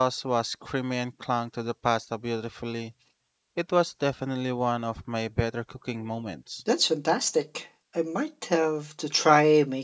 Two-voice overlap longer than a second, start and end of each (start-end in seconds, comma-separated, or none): none